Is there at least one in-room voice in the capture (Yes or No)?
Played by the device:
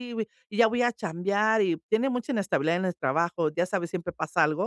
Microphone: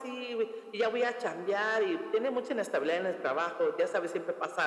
No